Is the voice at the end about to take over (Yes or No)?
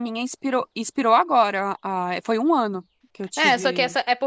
Yes